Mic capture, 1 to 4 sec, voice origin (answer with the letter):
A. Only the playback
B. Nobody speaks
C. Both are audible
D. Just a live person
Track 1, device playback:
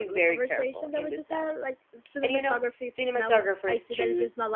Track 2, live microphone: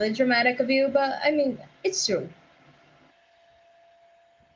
D